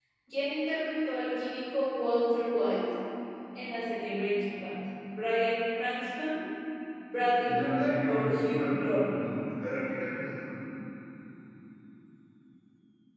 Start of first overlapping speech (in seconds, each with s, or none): 7.5 s